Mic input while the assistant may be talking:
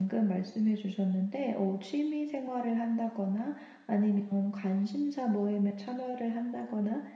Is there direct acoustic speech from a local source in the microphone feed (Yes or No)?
Yes